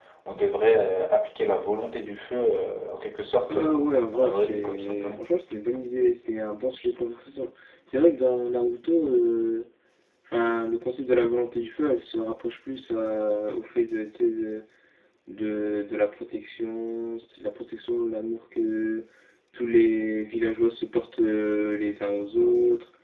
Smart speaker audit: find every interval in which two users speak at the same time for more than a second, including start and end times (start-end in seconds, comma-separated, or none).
3.5-5.2